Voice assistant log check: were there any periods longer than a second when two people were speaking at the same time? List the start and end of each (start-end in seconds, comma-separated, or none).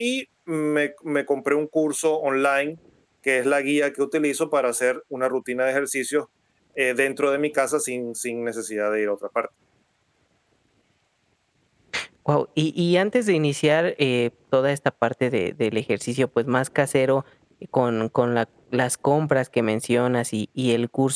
none